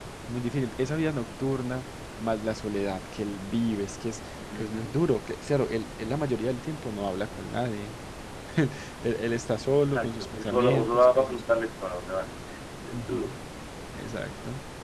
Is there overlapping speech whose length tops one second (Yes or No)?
Yes